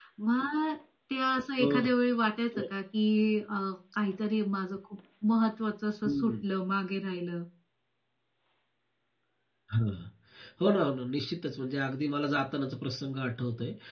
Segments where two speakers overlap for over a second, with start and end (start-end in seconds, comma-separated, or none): none